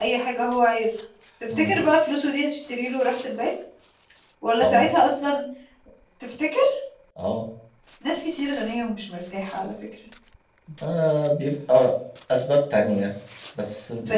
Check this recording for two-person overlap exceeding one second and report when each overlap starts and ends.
none

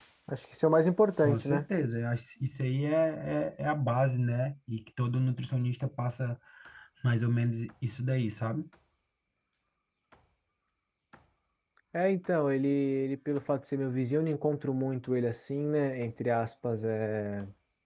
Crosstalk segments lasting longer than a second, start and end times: none

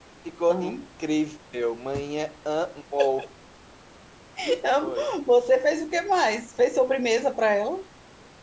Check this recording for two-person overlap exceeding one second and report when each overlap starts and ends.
none

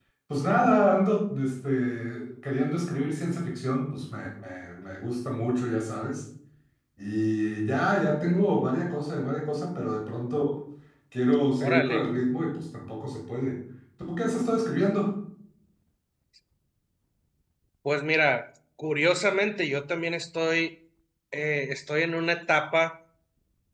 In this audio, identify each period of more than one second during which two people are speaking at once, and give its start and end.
none

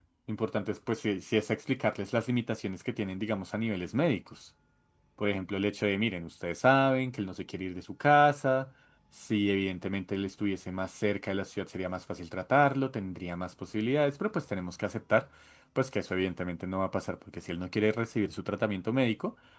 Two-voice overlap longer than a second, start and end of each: none

